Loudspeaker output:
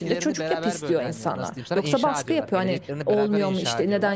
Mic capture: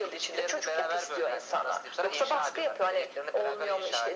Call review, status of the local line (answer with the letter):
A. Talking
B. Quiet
B